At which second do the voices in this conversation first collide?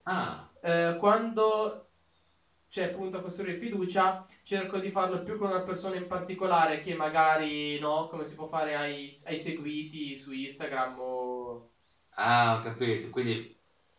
none

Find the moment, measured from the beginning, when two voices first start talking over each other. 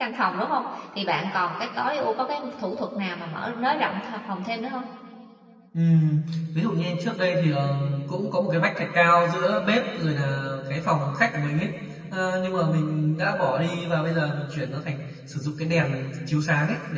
none

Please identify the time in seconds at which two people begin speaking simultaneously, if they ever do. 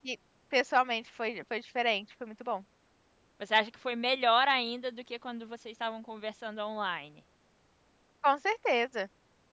none

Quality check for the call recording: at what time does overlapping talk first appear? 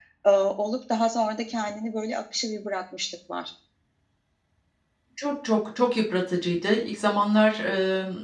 none

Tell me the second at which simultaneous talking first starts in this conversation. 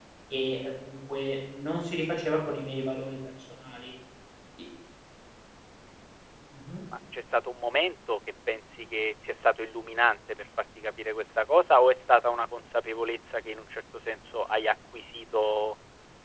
none

